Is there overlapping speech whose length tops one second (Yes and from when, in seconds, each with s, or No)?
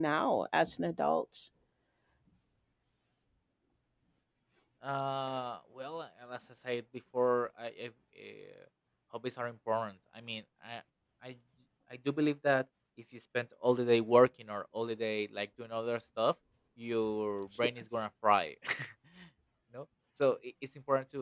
No